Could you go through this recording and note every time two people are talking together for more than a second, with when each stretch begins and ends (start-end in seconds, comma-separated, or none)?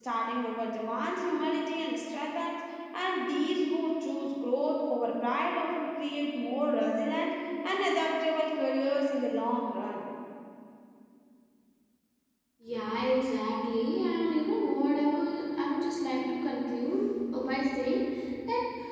none